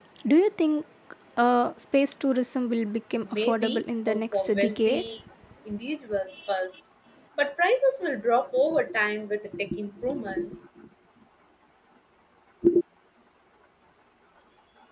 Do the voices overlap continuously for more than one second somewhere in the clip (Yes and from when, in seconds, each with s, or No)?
Yes, from 3.2 s